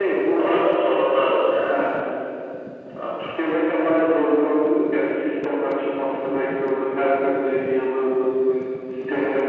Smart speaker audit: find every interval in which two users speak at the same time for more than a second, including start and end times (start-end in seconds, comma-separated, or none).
none